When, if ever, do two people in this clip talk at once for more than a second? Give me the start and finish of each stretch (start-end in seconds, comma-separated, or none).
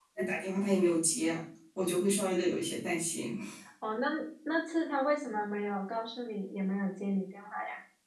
none